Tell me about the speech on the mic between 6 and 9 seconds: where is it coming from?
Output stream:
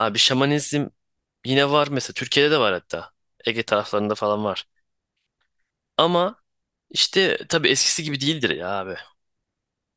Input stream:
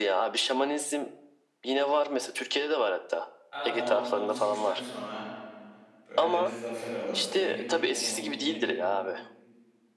both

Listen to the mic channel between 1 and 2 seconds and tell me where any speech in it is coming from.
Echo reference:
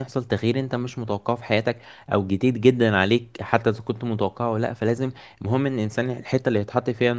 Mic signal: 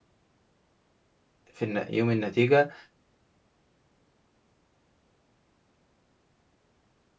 user only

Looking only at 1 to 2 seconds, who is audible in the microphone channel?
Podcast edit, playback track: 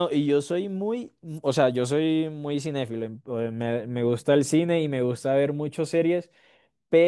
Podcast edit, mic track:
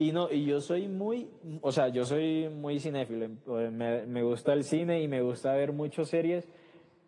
echo only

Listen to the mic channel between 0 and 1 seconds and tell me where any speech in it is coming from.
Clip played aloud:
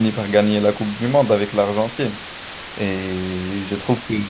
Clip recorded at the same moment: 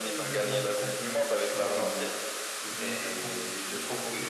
both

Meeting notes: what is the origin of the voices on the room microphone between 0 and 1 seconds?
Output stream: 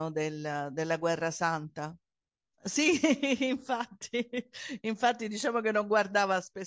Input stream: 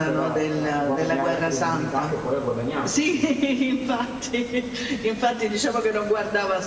both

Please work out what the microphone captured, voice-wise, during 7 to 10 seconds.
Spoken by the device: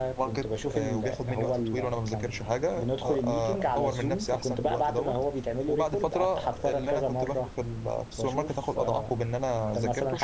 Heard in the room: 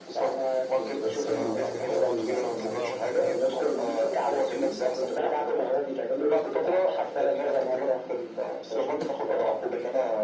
echo only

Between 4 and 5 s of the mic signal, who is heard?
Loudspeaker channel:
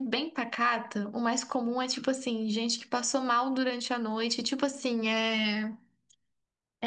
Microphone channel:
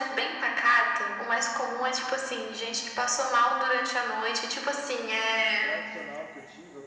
echo only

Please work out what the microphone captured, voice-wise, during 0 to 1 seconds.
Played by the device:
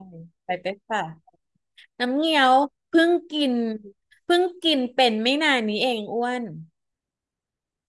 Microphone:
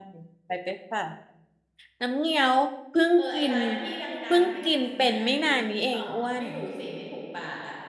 echo only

